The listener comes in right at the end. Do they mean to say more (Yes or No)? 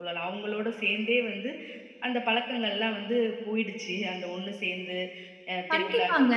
Yes